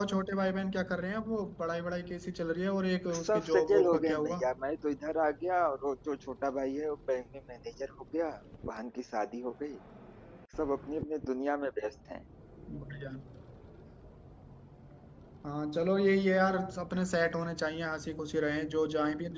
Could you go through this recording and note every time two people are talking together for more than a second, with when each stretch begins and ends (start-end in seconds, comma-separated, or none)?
3.2-4.4